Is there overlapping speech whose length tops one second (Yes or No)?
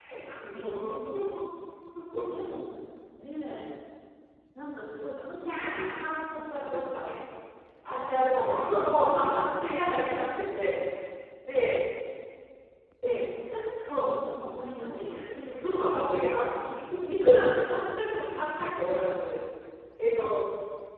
Yes